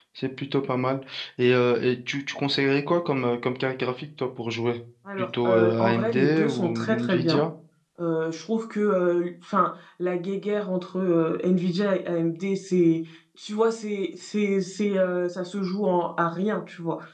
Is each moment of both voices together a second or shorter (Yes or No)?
No